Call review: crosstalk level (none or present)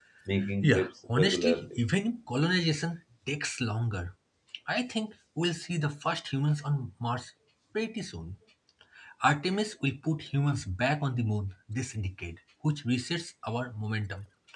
present